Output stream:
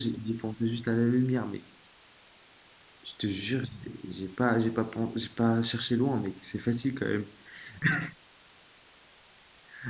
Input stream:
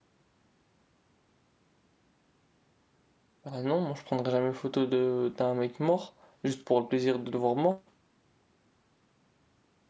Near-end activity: present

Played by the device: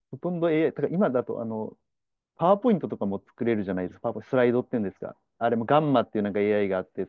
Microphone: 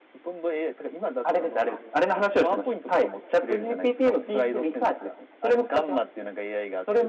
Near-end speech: present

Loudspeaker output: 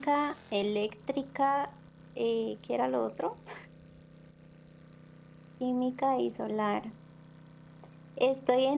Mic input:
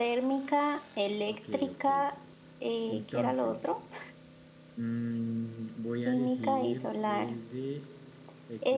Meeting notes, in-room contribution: present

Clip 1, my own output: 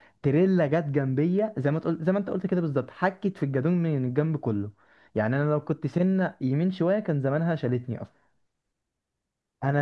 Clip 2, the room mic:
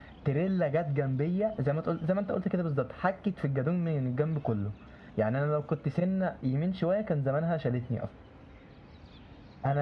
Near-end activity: none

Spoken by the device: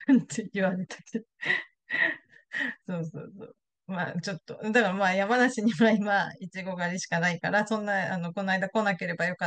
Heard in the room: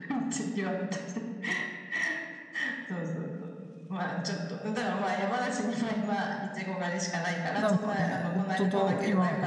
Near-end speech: present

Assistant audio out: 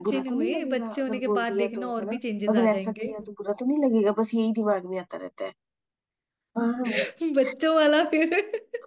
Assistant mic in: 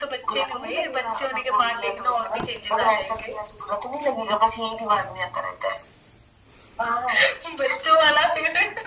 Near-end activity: none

